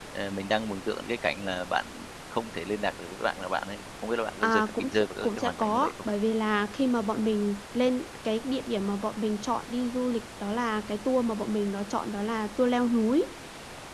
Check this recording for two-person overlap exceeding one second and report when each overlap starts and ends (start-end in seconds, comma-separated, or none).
4.4-5.9